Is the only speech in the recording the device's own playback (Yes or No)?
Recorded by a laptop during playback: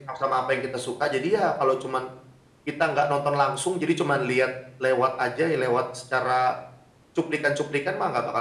Yes